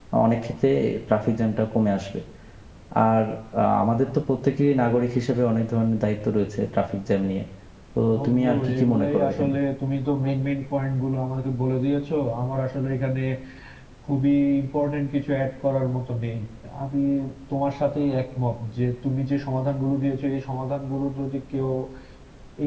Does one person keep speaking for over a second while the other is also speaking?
Yes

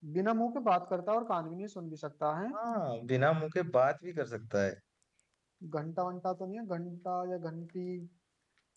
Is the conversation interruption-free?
Yes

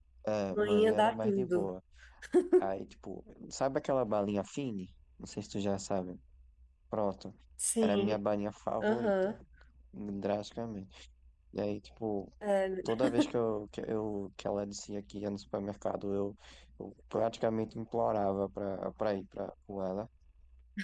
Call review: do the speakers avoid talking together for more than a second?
No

